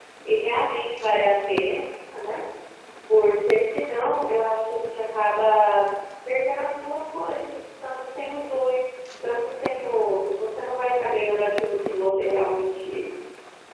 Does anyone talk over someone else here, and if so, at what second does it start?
none

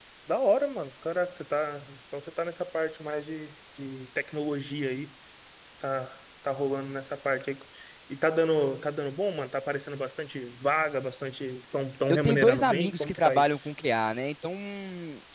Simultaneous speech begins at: 12.1 s

